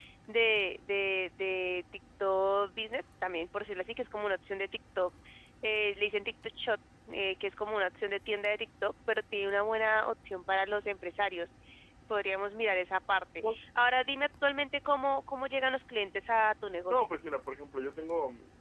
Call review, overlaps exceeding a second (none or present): none